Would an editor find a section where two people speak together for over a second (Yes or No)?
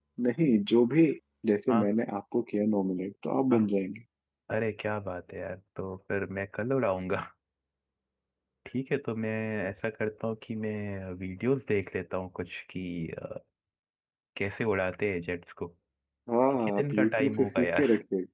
Yes